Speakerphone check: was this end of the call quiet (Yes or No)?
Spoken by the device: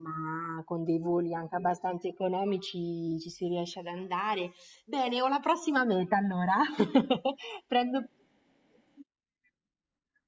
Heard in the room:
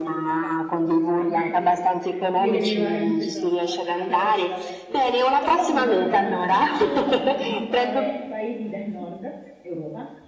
No